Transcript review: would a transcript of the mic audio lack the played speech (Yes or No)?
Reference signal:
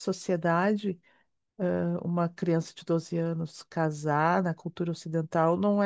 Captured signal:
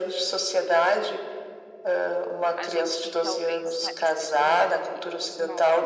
No